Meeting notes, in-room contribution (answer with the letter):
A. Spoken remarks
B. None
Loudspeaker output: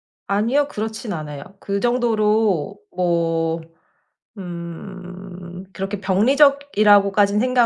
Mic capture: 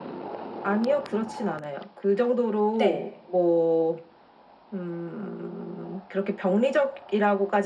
A